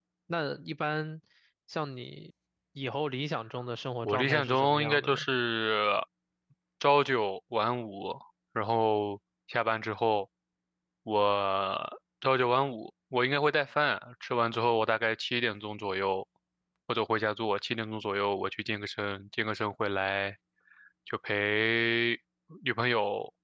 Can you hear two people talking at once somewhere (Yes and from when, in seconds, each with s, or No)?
Yes, from 4.0 s